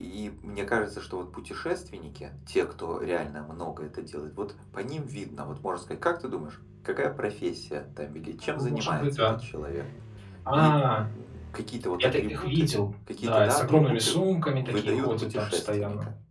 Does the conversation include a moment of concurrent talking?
Yes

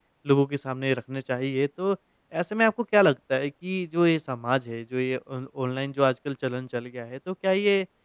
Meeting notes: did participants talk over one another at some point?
No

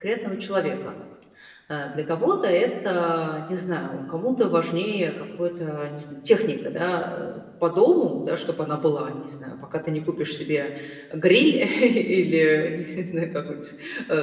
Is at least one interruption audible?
No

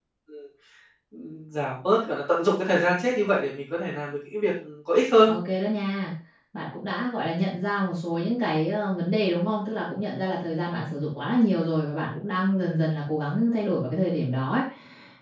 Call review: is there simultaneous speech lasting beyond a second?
No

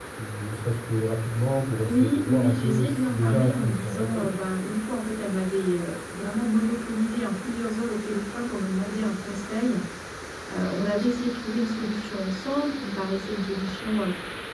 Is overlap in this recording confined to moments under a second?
No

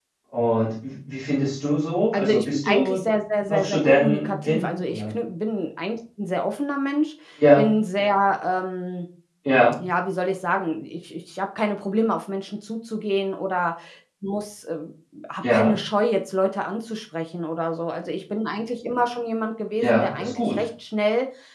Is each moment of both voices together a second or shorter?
No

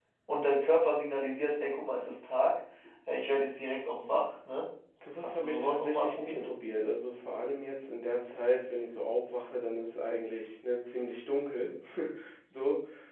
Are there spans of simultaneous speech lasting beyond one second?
Yes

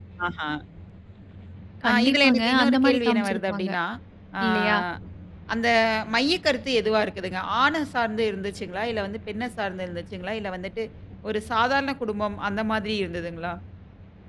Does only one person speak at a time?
No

